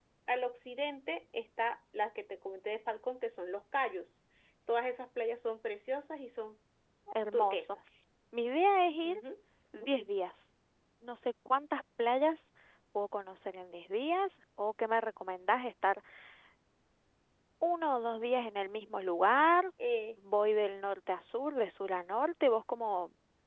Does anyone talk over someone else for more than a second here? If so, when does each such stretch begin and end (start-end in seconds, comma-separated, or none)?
none